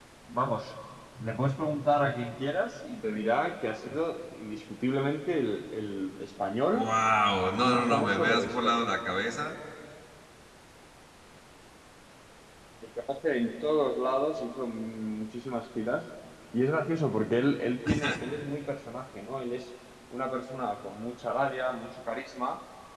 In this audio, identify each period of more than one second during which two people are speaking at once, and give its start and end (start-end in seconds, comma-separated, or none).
7.6-8.8